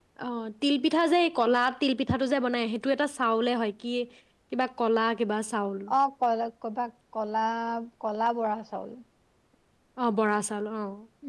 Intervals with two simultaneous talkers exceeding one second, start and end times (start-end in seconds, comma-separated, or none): none